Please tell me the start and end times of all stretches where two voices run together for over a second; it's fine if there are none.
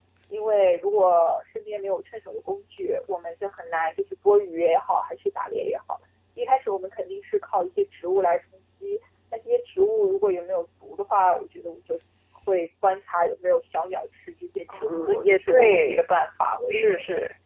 14.8-16.1

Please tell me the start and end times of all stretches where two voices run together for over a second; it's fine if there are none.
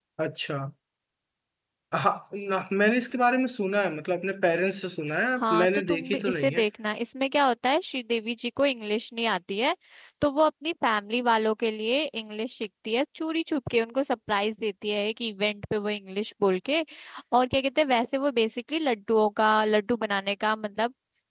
5.4-6.6

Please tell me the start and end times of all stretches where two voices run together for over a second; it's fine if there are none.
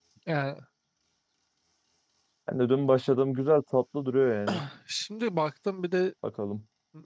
none

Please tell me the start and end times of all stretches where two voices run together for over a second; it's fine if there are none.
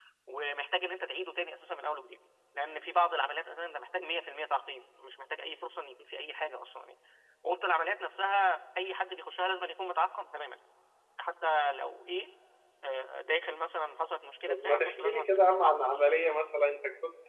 14.5-15.9

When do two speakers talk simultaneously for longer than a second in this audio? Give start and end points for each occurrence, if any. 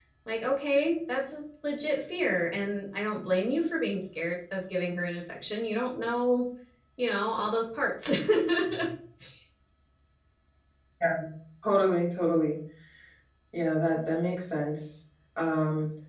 none

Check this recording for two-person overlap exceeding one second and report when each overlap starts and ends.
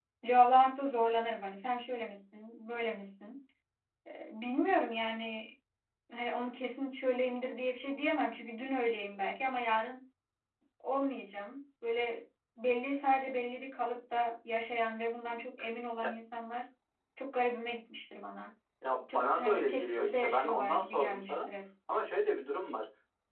19.1-21.5

